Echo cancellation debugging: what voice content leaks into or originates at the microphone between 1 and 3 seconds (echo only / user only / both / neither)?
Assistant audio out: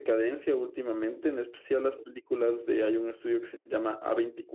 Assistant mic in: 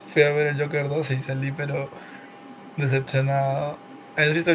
user only